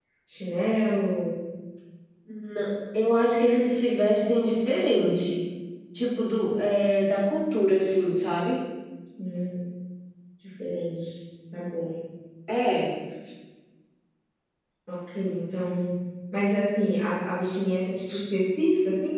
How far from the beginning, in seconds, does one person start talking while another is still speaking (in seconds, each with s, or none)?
none